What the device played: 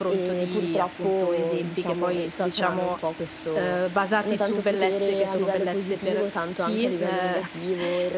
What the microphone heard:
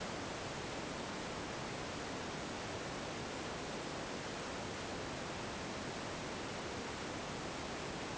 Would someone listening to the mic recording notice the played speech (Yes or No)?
No